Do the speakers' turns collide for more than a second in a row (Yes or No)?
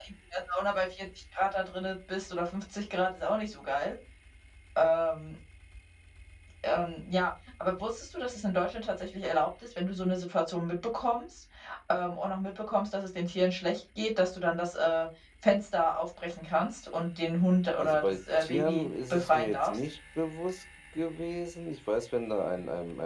Yes